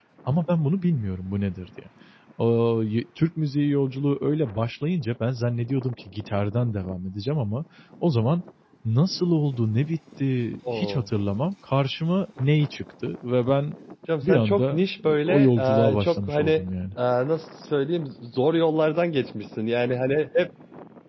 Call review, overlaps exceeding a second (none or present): present